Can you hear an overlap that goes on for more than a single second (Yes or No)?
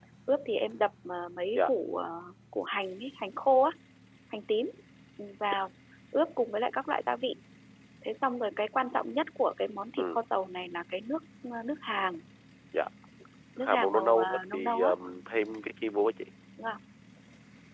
Yes